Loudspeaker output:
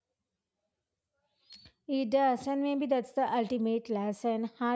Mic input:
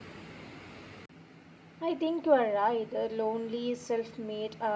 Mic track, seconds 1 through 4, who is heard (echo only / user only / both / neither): user only